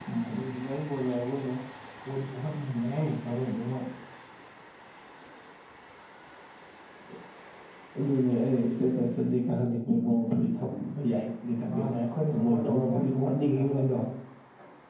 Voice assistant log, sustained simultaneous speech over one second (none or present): present